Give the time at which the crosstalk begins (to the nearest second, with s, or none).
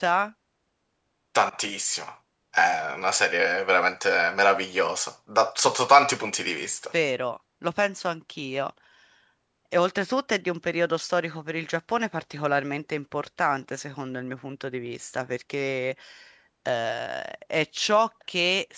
none